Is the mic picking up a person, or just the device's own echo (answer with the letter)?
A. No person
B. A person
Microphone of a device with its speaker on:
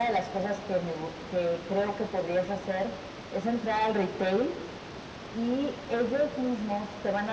A